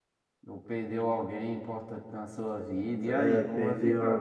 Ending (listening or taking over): taking over